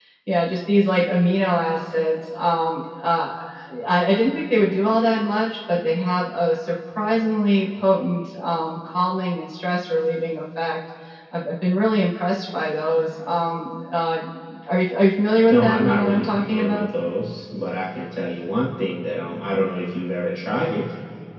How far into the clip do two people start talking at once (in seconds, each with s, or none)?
15.5 s